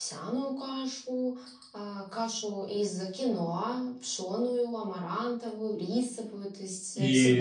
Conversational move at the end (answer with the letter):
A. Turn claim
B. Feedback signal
A